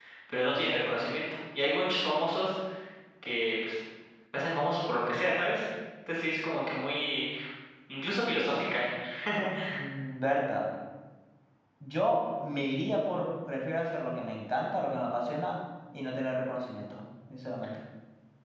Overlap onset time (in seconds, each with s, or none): none